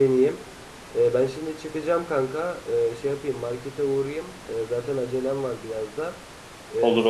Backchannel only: Yes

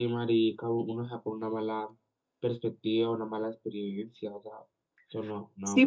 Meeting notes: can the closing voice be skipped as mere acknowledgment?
No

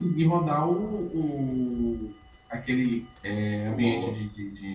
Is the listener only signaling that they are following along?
Yes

